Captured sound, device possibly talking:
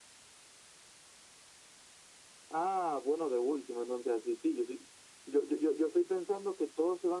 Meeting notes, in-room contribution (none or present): none